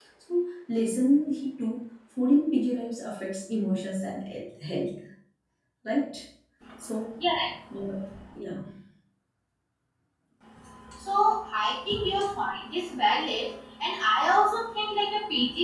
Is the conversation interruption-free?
Yes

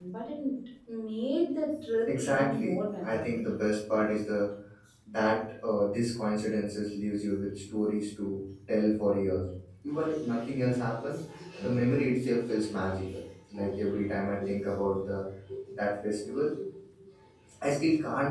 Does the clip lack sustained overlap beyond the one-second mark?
No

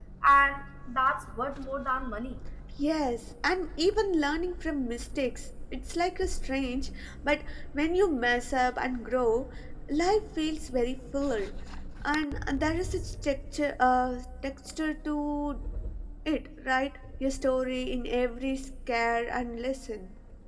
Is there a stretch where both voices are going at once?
No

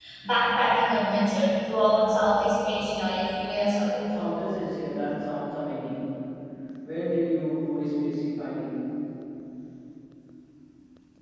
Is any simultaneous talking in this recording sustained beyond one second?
No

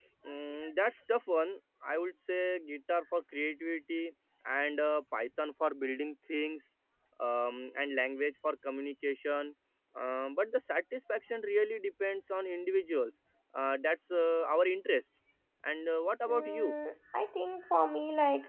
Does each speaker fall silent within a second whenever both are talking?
Yes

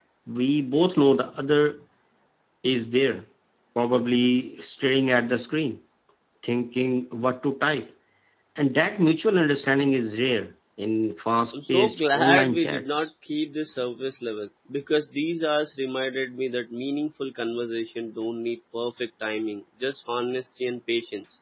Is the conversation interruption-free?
No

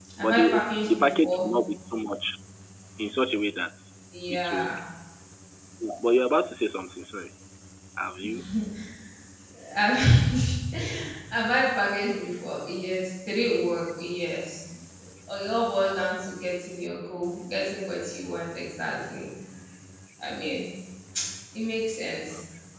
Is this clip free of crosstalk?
No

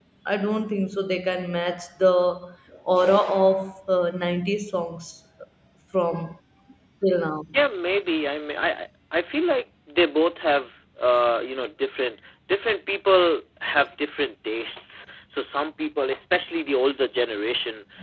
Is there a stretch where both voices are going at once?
No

